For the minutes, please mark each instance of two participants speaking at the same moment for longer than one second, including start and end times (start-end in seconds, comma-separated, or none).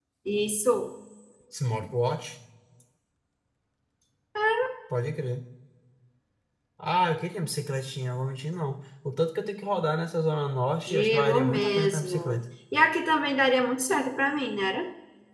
10.9-12.3